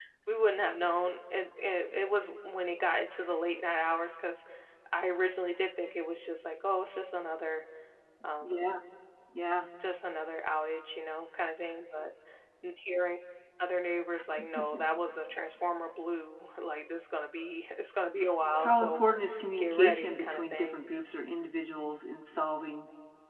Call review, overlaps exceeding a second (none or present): present